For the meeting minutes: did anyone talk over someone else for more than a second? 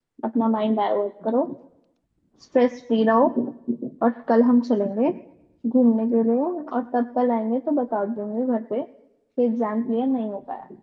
No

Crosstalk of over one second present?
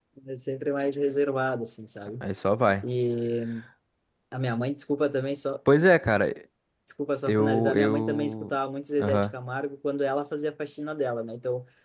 Yes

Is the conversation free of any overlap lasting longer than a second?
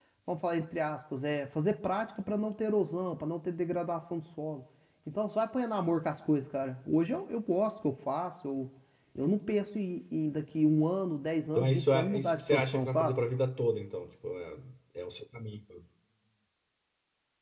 No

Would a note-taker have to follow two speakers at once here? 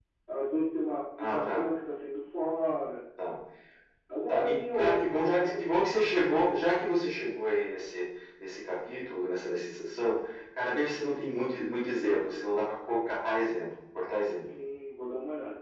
Yes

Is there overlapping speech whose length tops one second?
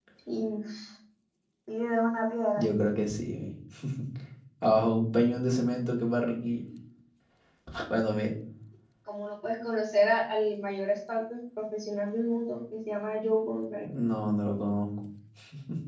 No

